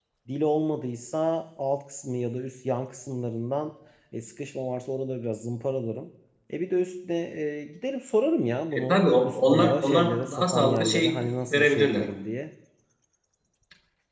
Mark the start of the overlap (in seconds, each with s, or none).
8.7 s